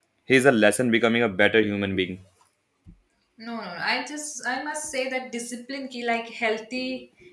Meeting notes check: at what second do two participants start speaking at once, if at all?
none

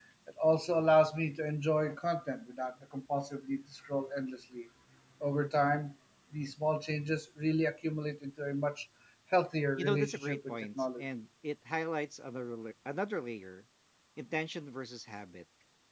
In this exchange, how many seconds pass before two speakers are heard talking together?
10 s

